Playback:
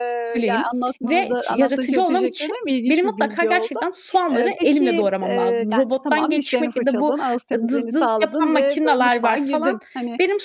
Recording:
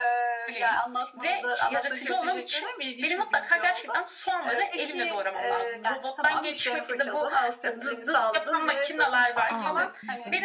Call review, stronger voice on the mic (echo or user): echo